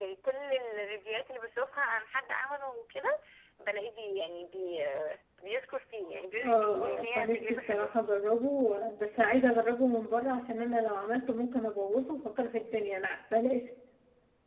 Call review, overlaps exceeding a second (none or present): present